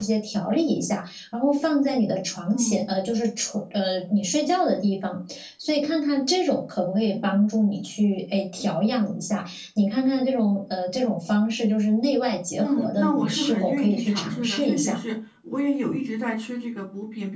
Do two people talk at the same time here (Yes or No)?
Yes